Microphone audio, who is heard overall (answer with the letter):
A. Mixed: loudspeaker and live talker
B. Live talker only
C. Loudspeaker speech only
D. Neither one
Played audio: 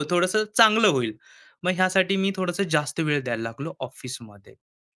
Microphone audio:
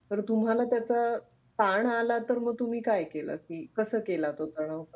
B